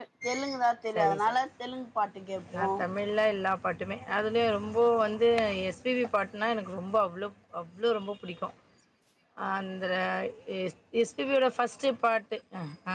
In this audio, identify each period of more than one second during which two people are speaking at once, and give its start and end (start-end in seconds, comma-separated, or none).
none